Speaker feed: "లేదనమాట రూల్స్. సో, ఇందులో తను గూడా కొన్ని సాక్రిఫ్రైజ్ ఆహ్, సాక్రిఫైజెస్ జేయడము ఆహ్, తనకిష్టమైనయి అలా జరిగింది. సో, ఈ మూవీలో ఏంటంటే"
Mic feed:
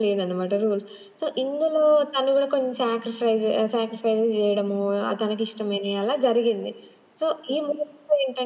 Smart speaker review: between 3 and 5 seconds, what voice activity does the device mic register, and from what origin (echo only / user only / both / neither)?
echo only